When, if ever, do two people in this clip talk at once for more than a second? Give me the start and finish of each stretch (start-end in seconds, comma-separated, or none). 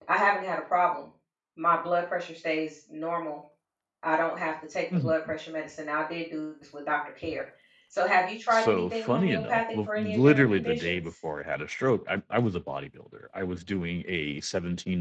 8.5-11.0